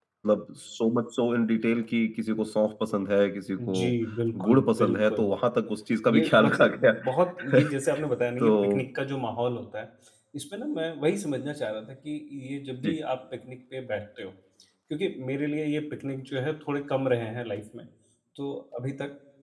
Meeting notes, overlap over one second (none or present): present